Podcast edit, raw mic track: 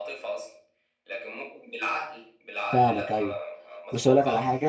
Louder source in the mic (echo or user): user